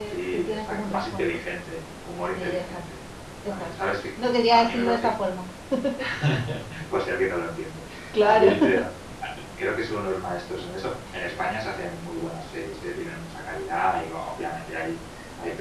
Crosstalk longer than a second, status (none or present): present